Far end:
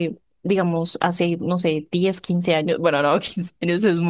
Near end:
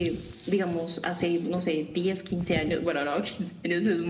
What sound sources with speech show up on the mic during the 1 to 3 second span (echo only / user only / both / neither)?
echo only